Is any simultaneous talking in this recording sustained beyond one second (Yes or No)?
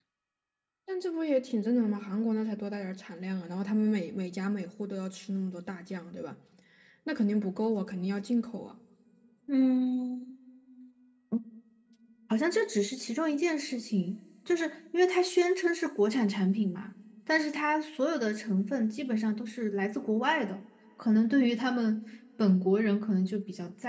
No